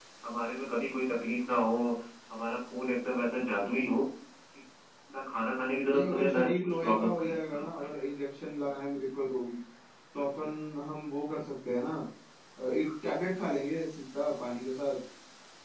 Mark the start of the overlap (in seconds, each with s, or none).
5.9 s